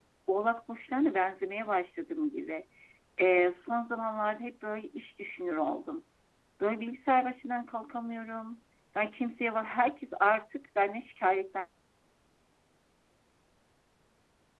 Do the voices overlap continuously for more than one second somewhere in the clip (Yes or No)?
No